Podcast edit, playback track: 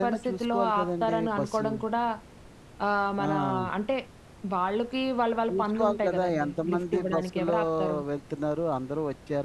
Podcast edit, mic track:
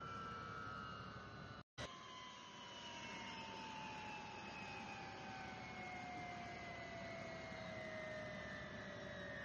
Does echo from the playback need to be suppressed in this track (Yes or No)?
No